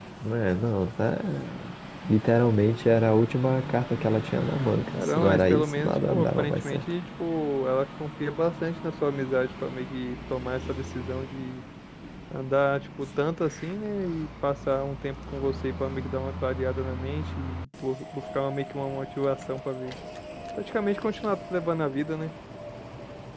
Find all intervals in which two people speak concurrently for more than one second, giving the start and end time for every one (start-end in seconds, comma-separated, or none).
4.9-6.8